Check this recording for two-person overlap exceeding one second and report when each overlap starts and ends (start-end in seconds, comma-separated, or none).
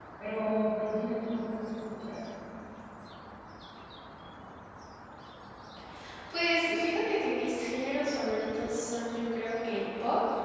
none